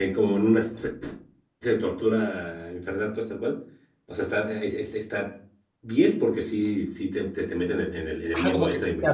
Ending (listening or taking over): taking over